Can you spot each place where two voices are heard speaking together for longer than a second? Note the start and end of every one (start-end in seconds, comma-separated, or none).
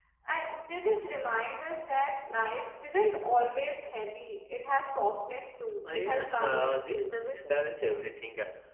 5.9-7.1